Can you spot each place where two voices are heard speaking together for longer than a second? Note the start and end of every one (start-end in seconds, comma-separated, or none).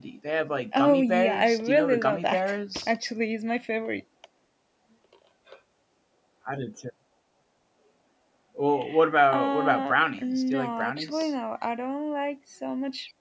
0.7-2.9, 9.3-11.3